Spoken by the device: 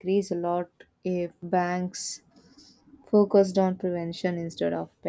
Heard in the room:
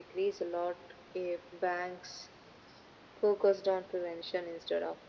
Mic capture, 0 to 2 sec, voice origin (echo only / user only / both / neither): echo only